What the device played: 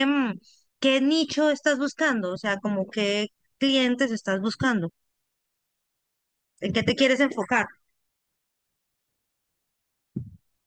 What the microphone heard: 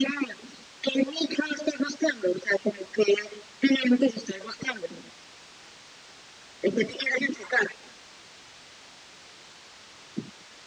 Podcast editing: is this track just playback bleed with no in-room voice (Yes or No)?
Yes